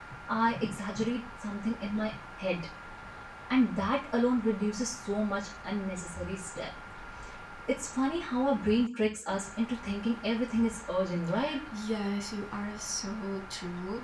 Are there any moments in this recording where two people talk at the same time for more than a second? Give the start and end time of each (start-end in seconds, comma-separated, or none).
none